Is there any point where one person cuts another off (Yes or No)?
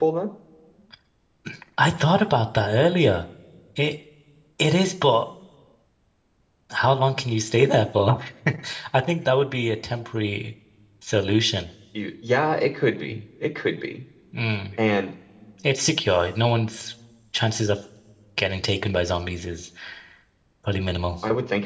No